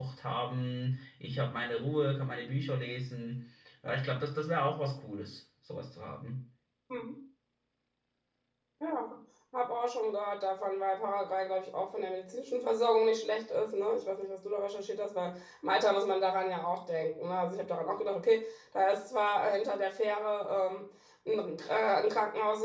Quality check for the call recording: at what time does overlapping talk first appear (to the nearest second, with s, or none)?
none